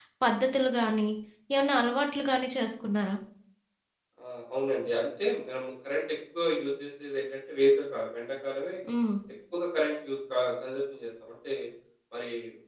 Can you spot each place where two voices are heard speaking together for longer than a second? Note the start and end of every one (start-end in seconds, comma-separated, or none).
none